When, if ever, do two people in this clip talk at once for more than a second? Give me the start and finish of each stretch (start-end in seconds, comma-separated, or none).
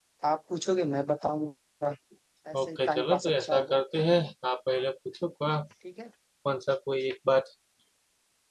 2.6-3.8